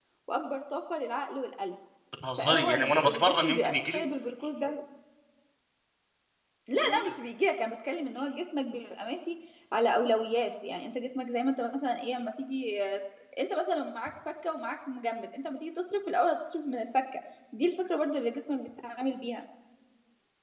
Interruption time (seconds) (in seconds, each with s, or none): 2.4 s